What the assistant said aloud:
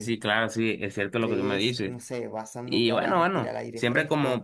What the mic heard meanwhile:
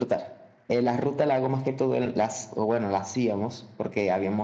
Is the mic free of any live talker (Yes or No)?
No